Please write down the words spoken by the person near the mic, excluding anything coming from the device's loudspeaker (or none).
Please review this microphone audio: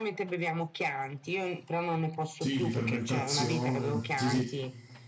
Sì, di fermentazione. Sì, sì.